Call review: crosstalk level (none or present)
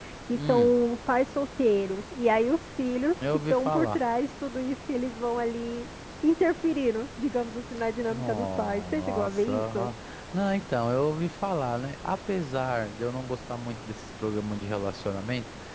present